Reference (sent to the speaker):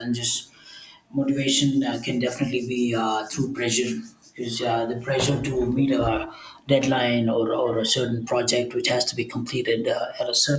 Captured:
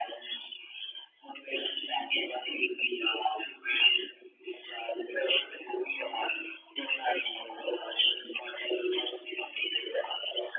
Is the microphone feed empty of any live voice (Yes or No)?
Yes